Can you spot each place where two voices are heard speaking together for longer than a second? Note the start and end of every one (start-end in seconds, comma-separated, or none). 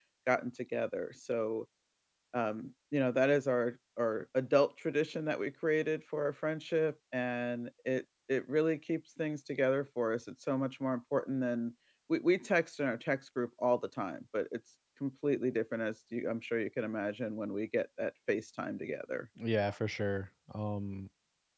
none